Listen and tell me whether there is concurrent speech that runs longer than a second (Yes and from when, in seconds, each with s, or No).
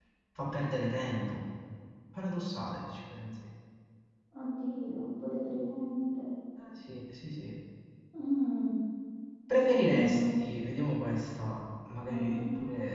No